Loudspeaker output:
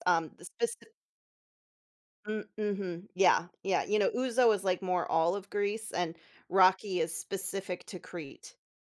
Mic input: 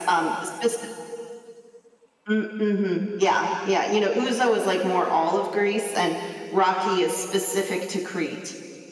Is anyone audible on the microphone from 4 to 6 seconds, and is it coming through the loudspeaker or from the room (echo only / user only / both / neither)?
echo only